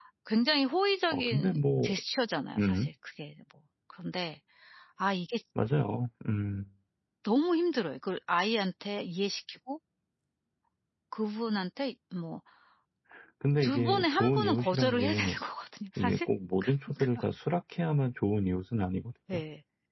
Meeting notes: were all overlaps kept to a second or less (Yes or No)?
No